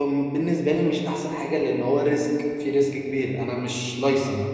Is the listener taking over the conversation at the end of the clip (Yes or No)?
Yes